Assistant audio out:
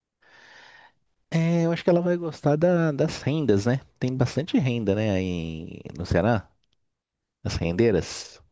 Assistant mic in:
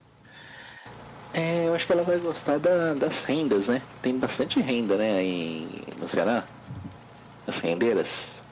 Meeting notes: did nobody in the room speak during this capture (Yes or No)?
Yes